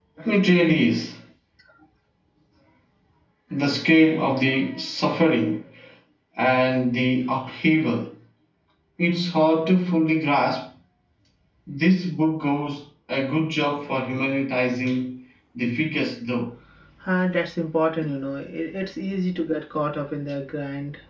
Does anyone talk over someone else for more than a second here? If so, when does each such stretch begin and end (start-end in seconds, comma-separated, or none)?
none